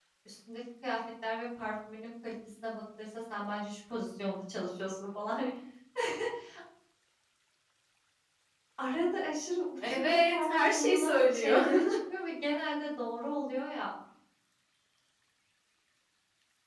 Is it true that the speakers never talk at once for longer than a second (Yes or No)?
No